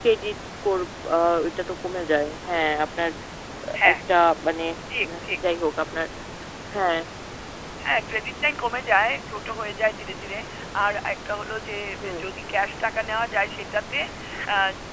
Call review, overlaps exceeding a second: none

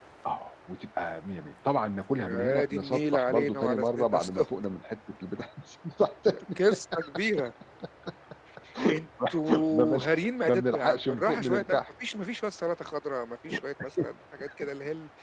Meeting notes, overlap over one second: present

